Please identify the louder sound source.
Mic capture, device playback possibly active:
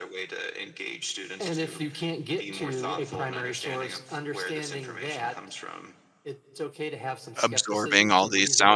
user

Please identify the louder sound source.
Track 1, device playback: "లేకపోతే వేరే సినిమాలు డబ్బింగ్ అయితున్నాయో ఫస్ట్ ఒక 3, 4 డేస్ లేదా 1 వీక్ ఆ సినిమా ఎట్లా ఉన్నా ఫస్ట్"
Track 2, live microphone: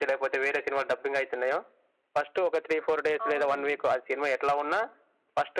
echo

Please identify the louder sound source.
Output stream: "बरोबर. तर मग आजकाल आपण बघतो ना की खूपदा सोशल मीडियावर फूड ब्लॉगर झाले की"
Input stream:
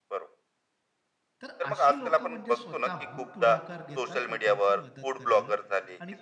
echo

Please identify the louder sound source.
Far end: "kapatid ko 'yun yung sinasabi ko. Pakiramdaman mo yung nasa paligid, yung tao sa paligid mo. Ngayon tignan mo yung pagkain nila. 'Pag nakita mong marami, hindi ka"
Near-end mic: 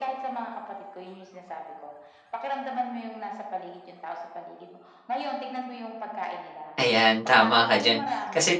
user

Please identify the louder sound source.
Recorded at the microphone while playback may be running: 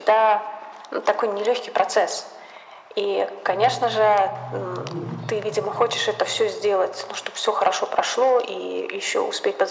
echo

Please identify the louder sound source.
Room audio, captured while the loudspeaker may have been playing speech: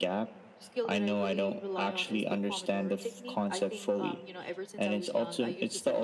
echo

